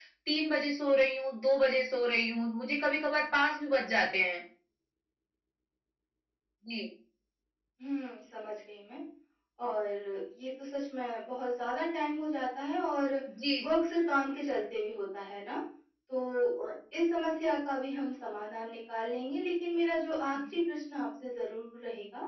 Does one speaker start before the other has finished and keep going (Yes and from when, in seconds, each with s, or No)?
No